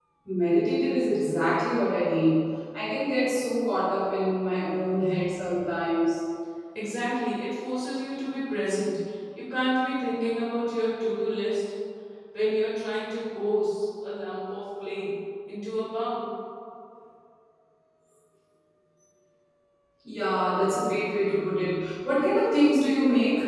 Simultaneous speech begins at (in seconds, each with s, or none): none